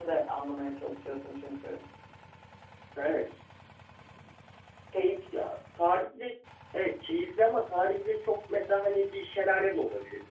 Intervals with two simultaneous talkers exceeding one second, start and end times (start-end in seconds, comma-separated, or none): none